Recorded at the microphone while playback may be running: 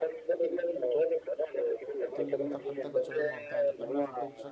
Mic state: both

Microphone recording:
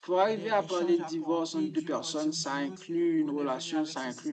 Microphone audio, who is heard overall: both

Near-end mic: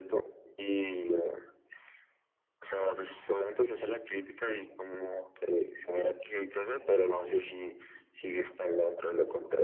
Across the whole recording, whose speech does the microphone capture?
echo only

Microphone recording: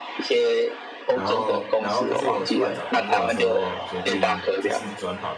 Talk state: both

